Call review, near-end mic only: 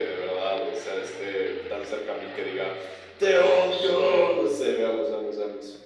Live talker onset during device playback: none

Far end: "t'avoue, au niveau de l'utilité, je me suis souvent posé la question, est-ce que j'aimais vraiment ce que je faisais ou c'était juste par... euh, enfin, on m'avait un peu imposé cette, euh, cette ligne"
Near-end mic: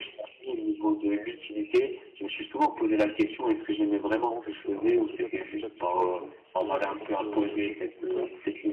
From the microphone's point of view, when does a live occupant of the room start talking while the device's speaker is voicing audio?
4.2 s

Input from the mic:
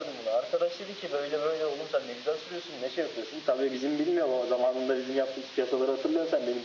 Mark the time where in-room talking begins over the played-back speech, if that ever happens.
none

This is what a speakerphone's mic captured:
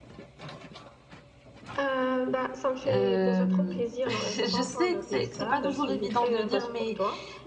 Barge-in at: 2.9 s

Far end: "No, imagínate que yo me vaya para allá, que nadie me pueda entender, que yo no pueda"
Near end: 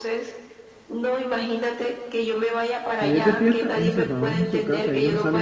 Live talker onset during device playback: 2.9 s

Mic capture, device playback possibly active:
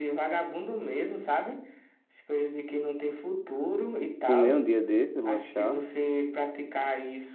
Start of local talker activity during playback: 4.2 s

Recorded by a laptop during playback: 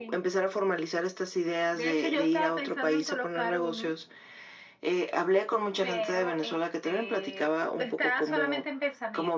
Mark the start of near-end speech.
none

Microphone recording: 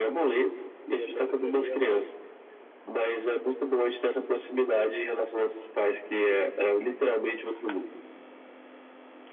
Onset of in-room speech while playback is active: 0.8 s

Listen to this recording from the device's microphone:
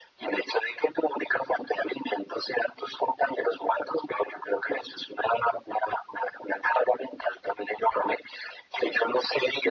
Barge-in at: none

